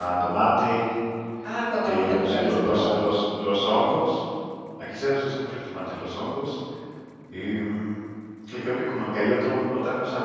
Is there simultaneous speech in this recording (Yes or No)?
Yes